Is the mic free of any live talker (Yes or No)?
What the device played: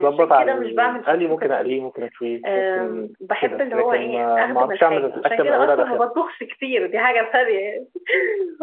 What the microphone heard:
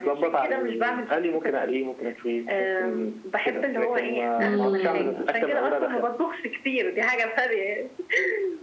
No